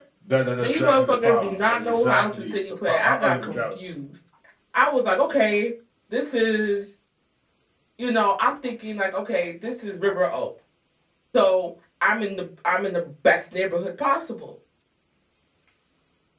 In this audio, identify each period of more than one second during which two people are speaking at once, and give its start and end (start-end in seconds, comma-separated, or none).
0.6-3.8